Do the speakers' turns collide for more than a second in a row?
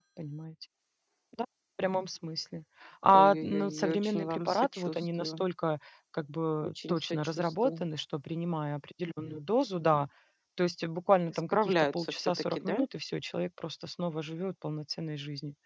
Yes, from 3.1 s

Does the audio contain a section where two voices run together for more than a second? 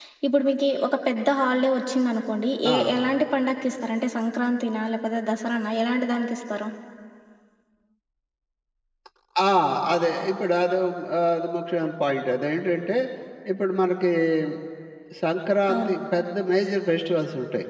No

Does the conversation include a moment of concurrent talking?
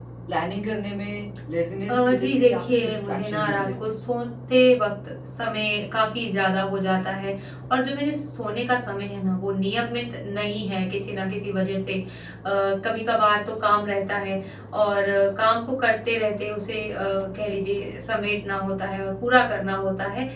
Yes, from 1.9 s

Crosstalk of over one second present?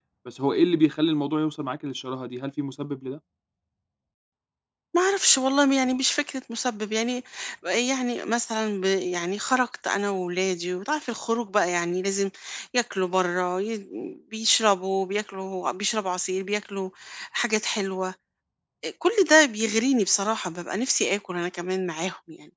No

